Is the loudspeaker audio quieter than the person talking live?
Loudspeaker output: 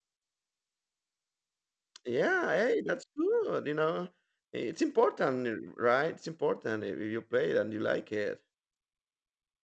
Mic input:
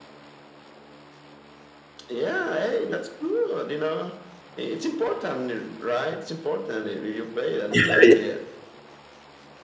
Yes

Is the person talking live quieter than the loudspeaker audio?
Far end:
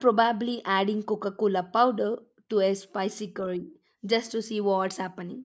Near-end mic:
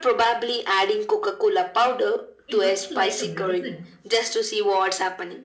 Yes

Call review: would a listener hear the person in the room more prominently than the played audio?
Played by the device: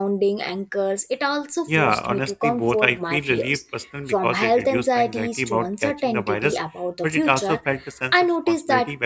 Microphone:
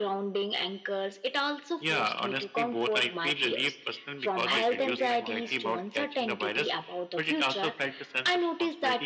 No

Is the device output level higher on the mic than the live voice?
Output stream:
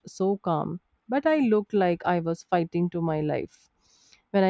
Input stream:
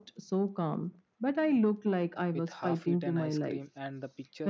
Yes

